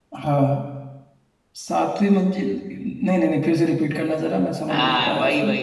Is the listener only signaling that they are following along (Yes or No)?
No